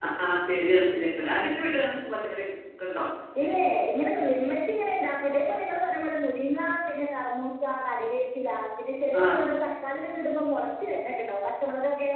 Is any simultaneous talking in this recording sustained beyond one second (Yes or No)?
No